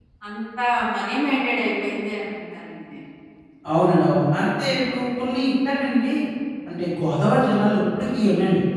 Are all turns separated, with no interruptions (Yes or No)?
Yes